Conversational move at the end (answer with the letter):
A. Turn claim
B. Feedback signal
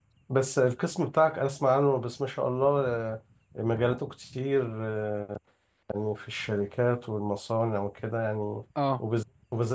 B